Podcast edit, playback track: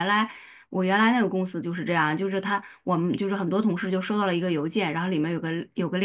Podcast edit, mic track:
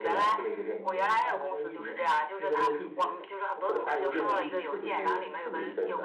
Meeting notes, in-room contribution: present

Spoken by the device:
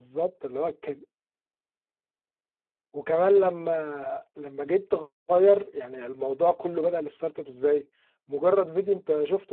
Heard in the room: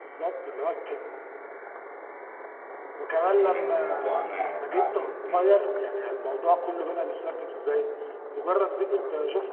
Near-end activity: present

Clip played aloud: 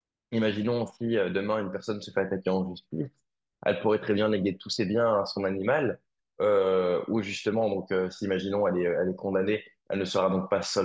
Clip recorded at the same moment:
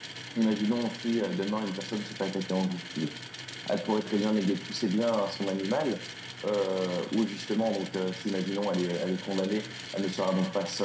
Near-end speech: none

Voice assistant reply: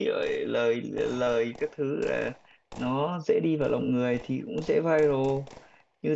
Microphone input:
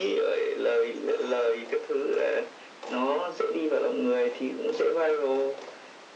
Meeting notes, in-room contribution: none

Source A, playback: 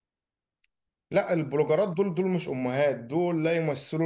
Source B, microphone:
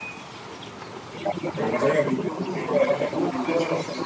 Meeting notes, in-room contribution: present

